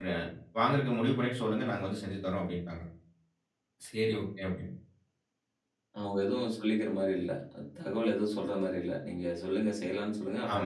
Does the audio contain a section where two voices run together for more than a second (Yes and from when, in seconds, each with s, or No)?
No